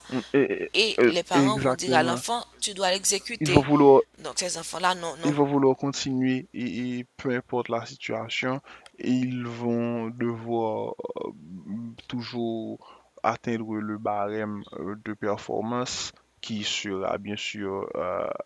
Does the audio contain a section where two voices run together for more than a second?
Yes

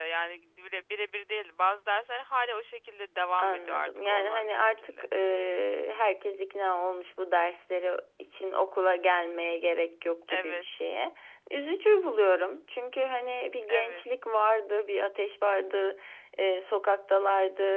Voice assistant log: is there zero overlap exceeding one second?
No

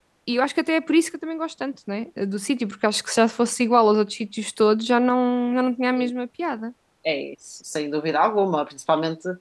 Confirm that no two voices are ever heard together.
Yes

